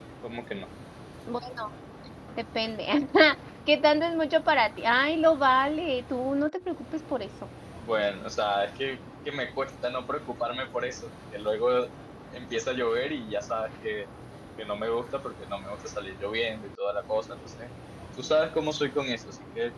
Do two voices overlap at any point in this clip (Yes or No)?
No